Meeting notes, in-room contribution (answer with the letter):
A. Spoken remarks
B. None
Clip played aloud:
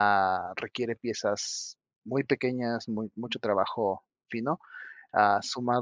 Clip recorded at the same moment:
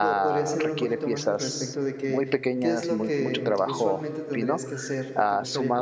A